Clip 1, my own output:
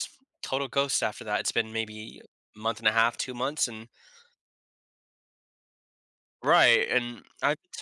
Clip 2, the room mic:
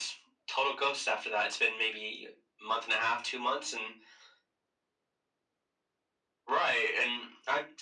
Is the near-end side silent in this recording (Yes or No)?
Yes